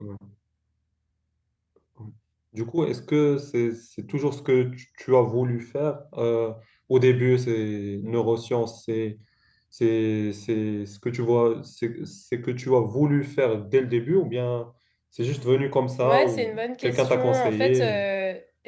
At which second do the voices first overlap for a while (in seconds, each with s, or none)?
16.0 s